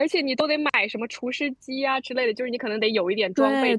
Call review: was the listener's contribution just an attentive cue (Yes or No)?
No